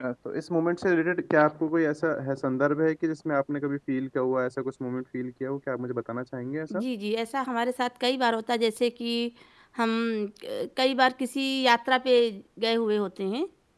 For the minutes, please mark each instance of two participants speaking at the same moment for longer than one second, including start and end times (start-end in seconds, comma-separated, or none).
none